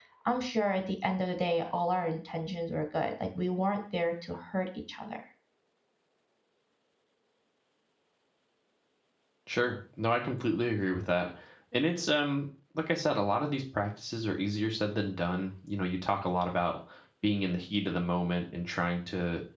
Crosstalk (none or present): none